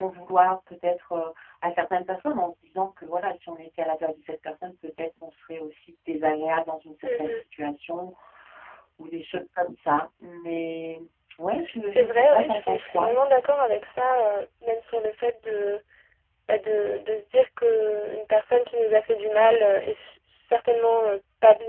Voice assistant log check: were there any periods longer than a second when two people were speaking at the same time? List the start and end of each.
11.8-13.1

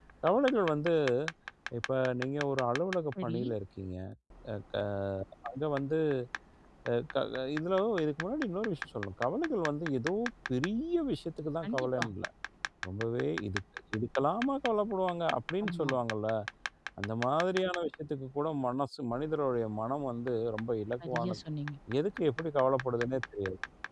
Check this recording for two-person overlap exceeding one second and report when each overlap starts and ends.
none

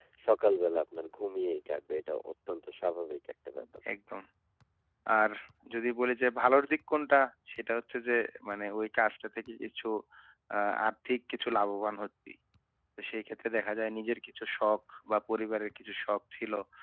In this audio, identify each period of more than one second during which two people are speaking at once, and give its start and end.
none

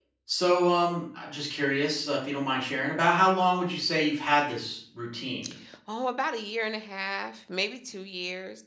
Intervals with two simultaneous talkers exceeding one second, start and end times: none

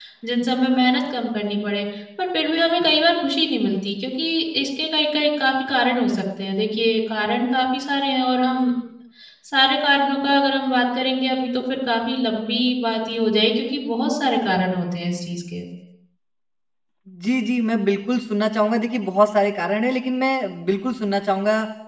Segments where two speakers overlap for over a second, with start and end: none

